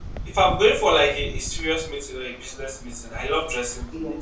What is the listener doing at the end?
listening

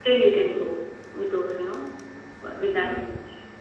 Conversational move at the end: taking over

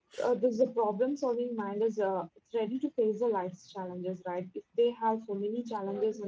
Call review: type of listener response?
listening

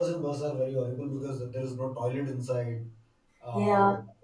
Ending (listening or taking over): listening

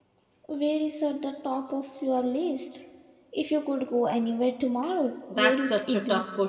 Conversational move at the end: taking over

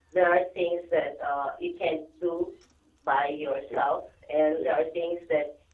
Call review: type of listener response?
listening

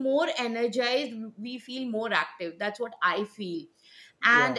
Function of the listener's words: listening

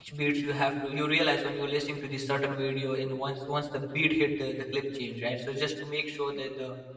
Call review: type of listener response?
listening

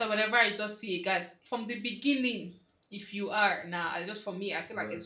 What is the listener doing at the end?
taking over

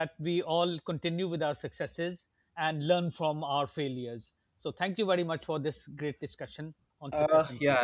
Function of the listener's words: taking over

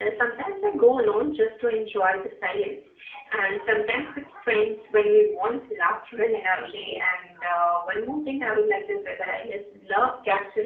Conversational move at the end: listening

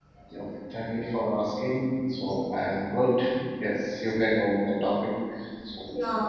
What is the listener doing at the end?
taking over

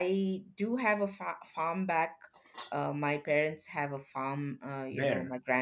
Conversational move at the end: listening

